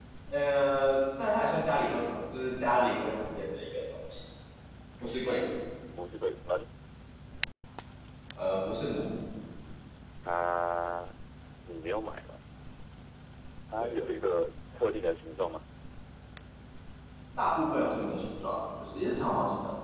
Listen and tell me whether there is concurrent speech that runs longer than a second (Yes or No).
No